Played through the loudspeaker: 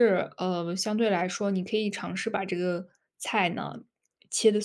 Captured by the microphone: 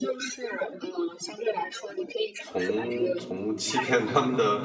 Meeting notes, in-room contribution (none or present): present